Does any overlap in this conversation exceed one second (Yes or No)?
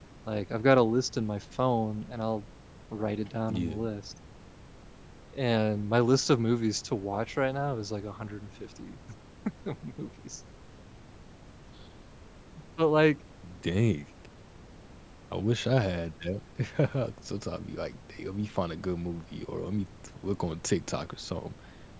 No